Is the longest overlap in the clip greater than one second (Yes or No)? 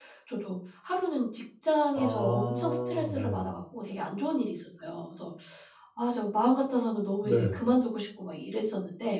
Yes